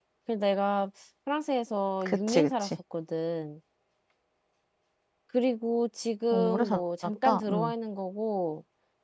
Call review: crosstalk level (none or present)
present